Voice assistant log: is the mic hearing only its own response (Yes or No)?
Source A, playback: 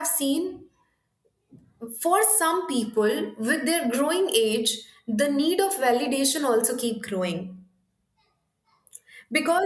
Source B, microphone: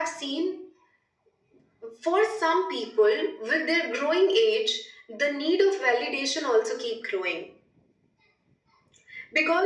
Yes